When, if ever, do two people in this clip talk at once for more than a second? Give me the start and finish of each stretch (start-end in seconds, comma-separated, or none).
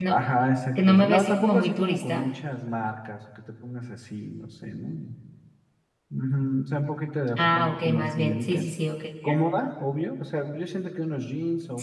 0.8-2.2, 7.4-8.7